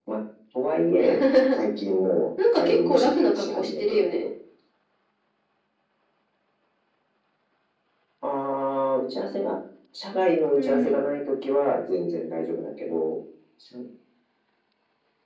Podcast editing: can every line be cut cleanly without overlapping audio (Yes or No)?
No